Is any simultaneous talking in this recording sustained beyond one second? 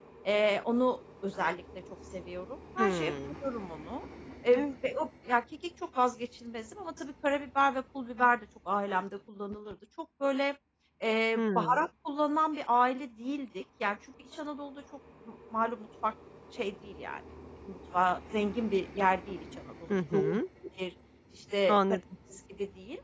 No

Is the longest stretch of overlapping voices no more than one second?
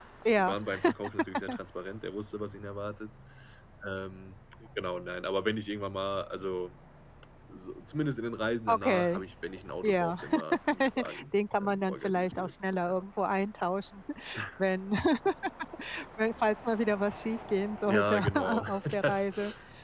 No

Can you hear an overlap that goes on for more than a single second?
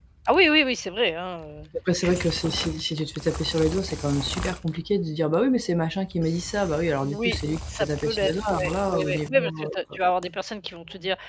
Yes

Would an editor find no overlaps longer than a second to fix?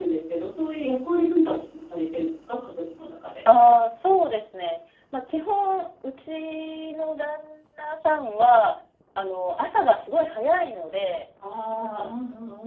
Yes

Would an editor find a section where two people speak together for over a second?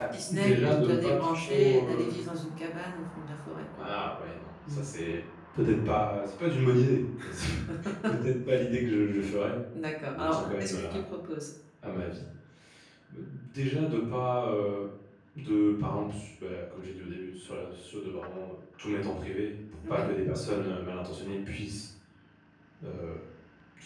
Yes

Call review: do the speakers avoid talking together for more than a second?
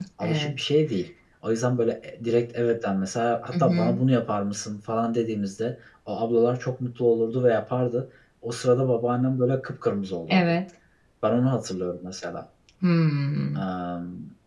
Yes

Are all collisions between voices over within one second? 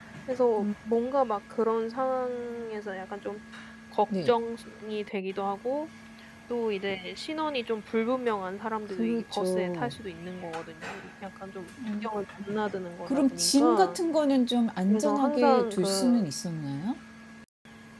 No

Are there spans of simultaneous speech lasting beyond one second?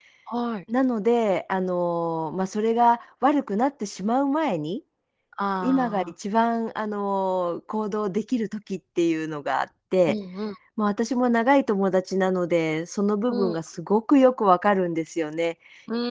No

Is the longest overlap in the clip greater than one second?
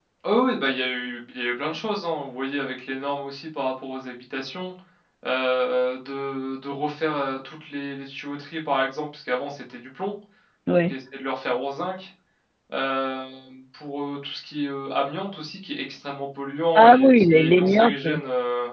Yes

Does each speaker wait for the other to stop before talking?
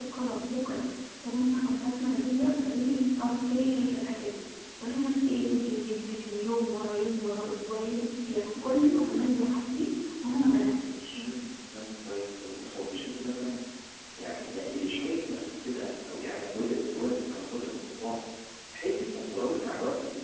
Yes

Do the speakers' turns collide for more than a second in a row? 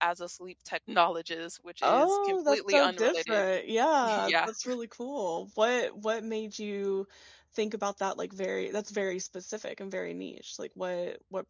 Yes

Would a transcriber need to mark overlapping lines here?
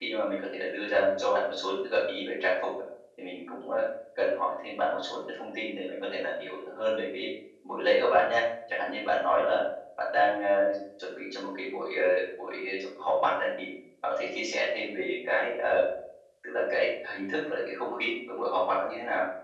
No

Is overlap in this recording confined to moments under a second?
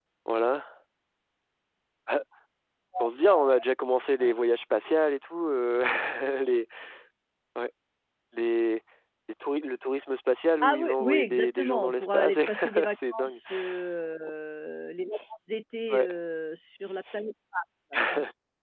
No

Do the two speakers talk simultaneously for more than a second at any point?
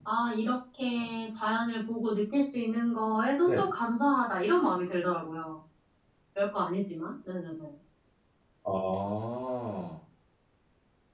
No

